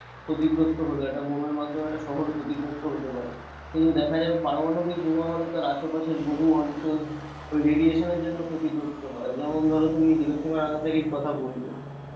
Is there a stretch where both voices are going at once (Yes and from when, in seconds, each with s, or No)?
No